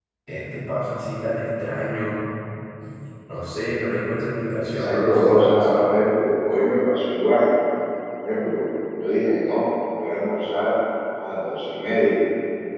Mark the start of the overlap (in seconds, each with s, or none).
4.7 s